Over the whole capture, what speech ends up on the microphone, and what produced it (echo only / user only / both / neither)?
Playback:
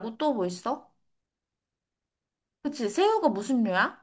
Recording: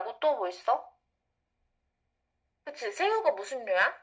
echo only